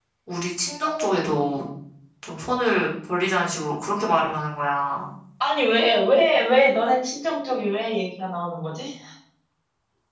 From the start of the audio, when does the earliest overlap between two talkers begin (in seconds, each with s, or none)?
none